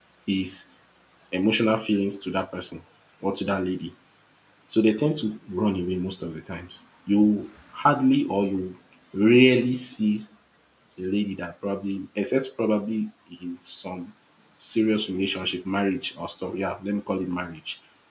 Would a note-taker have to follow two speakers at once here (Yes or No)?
No